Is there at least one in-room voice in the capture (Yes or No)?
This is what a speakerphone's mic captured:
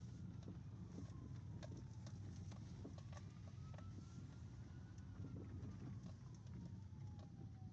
No